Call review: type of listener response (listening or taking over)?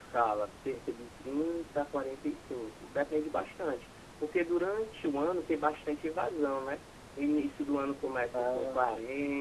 listening